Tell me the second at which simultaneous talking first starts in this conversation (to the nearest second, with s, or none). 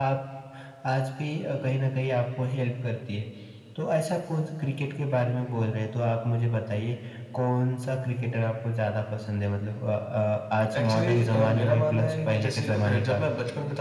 11 s